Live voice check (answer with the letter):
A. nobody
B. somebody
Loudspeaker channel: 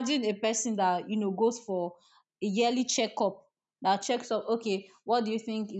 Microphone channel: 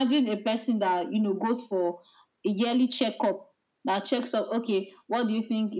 A